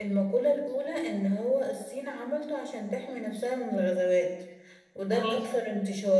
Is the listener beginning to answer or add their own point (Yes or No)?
No